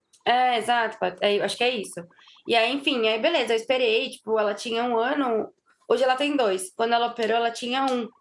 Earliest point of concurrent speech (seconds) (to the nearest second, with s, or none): none